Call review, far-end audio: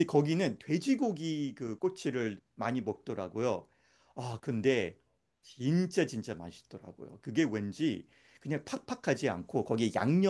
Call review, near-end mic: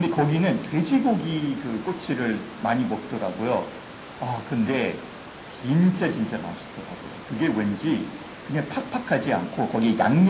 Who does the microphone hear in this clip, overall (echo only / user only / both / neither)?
echo only